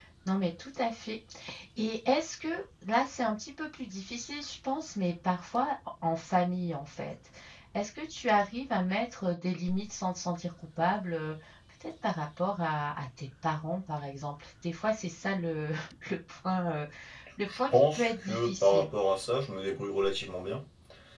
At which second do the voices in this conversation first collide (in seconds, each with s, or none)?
17.6 s